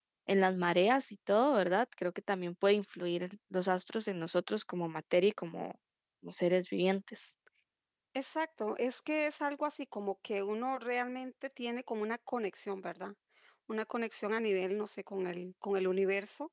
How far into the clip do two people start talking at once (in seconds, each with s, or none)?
none